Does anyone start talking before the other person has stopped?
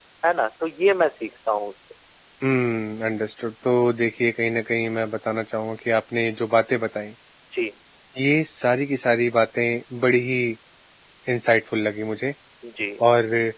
No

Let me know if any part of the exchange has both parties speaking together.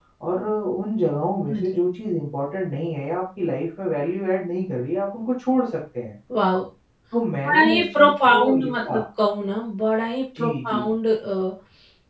Yes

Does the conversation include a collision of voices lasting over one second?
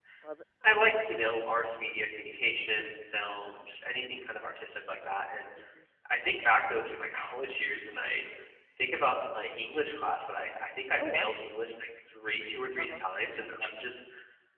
No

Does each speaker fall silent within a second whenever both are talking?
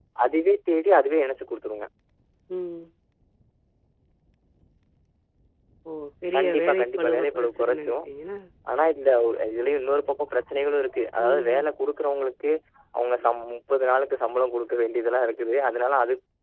No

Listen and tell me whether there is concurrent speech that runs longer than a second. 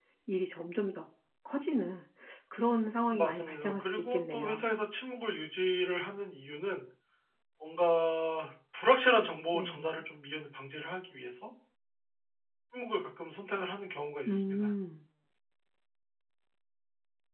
Yes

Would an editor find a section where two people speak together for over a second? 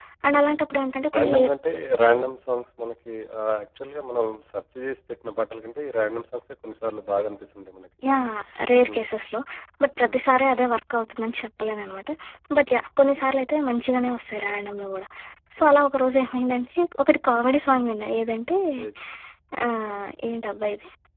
No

